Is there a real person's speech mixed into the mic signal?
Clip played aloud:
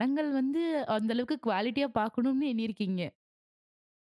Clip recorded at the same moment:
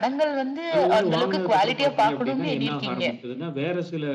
Yes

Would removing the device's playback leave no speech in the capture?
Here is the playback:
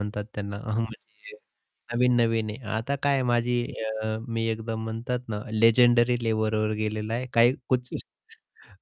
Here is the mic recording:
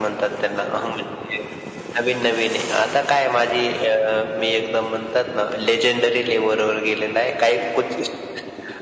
Yes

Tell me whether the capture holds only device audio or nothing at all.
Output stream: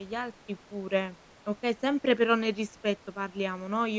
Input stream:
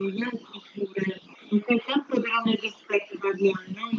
Yes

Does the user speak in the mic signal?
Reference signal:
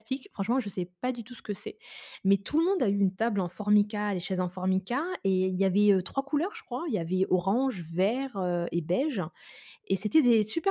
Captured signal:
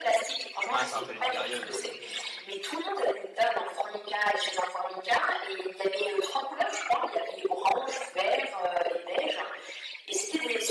Yes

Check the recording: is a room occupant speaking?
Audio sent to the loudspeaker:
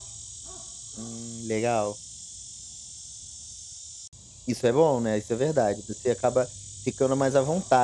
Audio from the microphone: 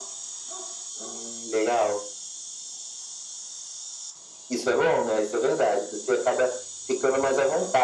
No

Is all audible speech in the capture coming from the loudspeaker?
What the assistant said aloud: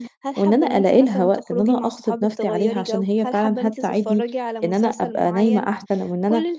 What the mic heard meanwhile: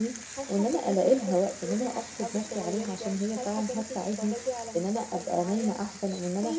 Yes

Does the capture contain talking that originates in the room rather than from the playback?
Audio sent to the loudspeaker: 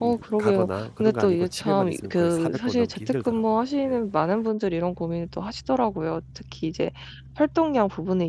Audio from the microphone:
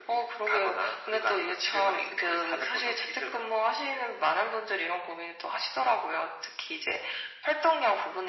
No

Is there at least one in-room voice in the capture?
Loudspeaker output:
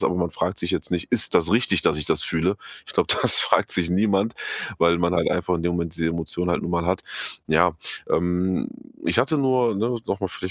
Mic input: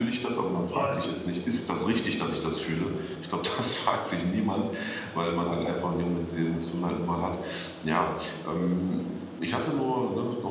Yes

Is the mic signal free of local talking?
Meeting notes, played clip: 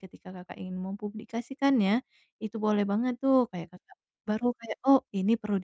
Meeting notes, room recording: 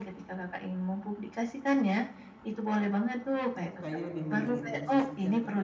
No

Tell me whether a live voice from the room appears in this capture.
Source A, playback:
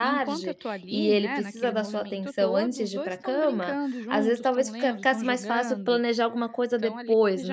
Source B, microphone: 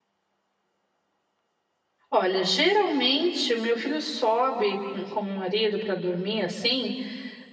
Yes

